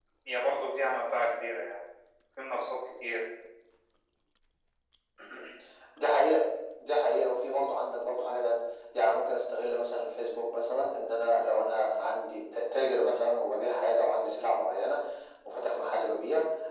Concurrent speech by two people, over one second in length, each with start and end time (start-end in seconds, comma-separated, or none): none